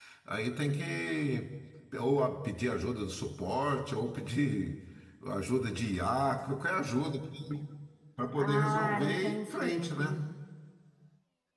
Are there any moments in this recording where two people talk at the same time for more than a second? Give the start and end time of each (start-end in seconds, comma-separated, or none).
8.4-10.2